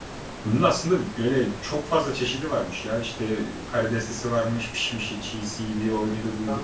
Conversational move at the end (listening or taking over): listening